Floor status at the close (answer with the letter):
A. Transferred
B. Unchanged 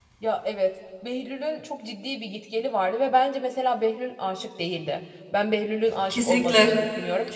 B